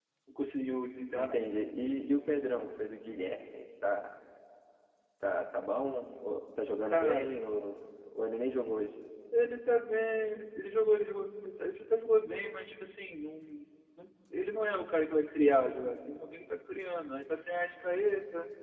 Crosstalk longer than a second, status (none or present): none